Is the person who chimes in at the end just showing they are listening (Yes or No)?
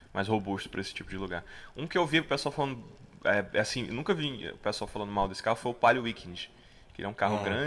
Yes